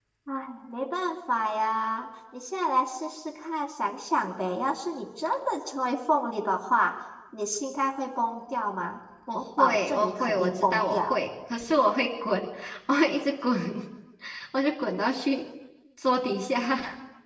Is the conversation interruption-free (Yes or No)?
No